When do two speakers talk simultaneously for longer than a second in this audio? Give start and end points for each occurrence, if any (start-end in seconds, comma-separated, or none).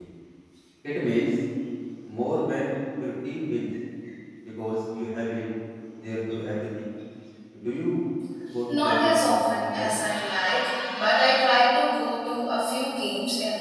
8.7-10.0